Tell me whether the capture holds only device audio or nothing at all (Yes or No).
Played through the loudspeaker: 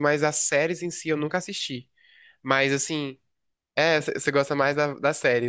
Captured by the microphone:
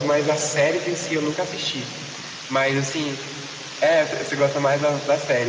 Yes